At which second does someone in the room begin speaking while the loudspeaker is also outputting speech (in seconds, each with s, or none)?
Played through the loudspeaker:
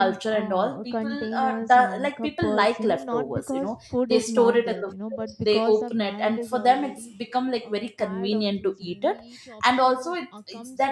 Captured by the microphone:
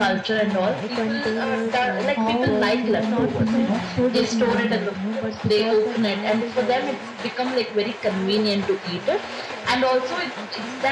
2.1 s